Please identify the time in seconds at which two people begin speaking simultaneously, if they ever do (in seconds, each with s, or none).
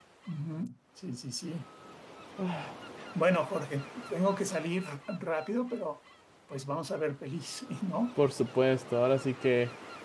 none